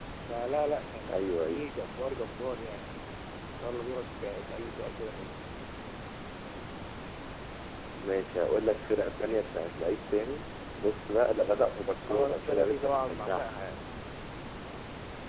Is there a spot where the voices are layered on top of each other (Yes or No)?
Yes